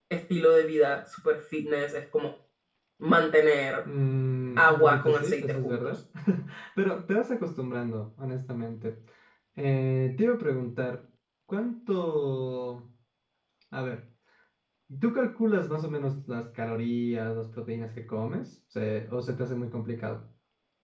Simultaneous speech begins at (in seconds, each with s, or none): 4.6 s